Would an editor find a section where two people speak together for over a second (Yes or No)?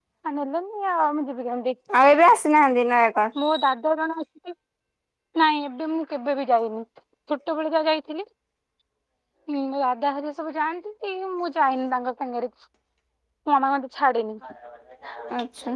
No